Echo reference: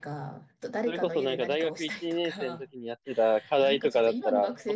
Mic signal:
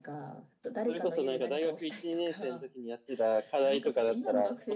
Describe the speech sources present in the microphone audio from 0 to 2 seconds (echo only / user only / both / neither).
echo only